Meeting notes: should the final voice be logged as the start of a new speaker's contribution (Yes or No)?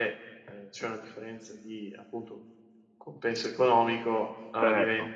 No